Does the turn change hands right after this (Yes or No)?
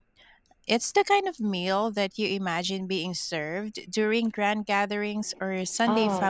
Yes